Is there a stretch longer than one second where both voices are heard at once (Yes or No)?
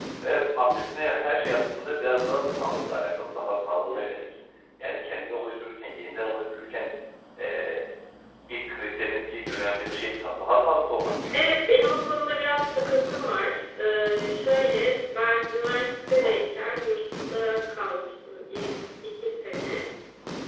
No